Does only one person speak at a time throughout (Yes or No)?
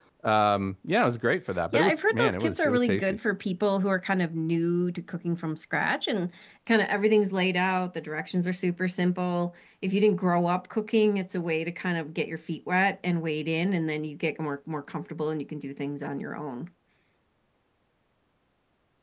No